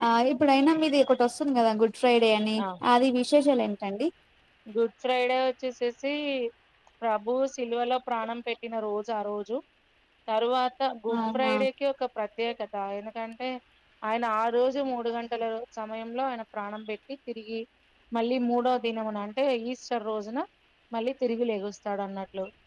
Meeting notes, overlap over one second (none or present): none